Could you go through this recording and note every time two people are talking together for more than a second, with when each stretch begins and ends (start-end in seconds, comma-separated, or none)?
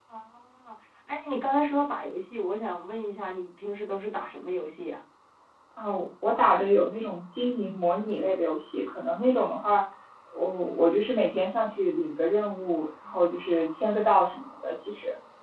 none